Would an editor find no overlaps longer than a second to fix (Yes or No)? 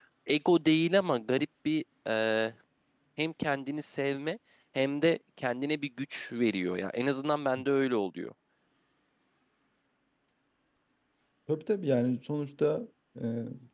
Yes